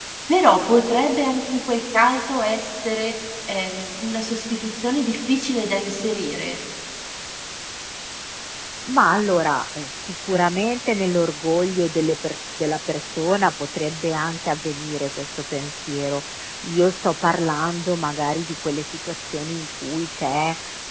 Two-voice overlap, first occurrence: none

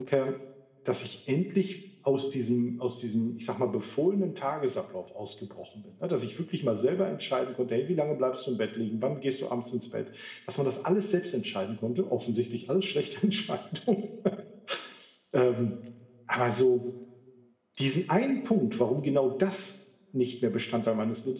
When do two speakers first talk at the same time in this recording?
none

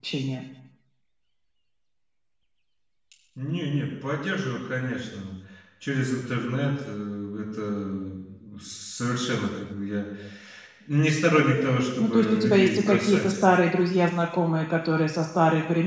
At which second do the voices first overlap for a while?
12 s

